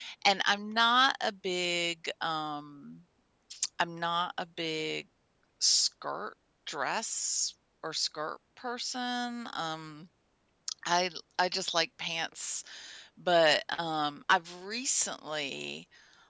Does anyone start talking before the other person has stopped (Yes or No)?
No